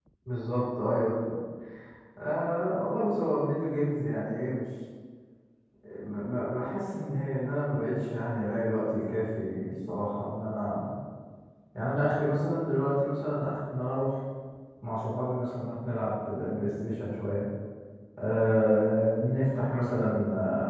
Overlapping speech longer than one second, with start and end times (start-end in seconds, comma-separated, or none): none